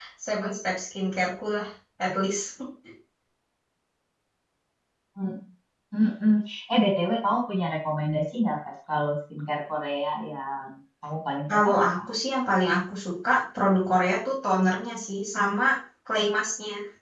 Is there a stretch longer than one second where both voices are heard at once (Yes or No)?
No